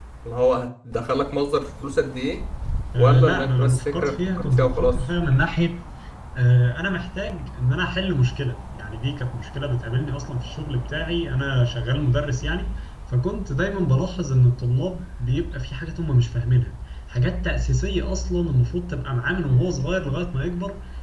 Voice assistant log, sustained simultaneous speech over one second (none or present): present